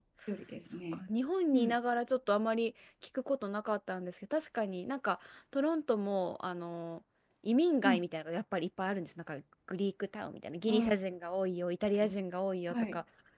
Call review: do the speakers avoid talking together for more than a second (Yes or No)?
Yes